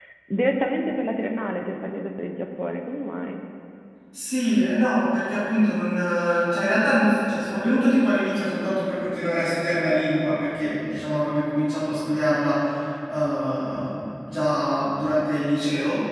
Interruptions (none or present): none